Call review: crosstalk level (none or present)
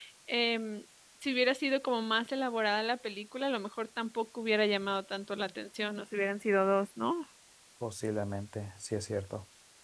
none